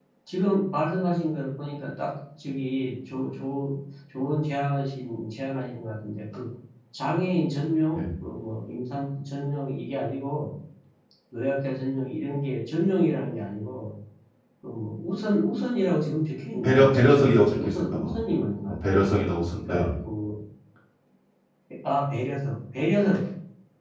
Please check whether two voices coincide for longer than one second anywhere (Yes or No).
Yes